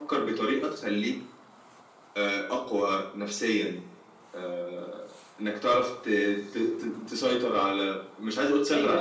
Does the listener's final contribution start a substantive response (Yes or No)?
Yes